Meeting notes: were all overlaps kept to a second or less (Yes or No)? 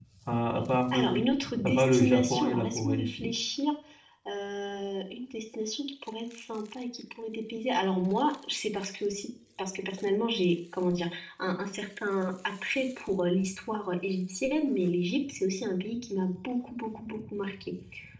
No